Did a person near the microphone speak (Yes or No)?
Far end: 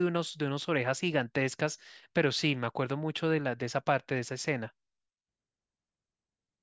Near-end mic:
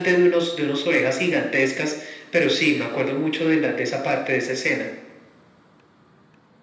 No